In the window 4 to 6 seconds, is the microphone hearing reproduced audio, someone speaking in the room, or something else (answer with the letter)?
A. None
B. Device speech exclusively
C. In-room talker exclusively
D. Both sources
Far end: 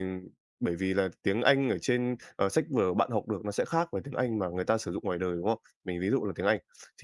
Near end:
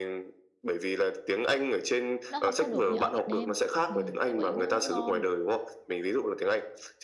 D